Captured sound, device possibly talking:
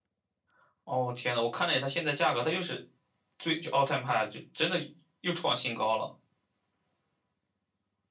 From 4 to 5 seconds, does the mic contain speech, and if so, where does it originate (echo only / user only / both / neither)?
echo only